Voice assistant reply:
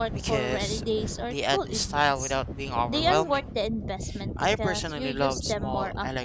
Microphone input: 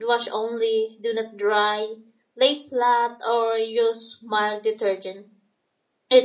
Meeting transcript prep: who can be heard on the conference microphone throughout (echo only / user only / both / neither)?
user only